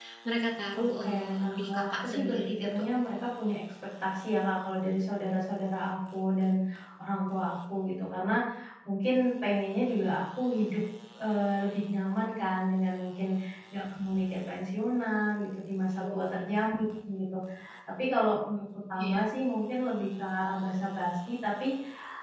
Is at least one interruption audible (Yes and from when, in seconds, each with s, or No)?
Yes, from 0.8 s